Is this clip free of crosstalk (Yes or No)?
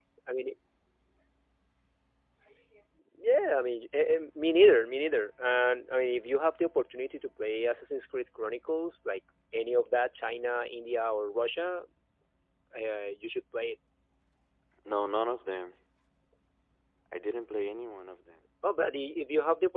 Yes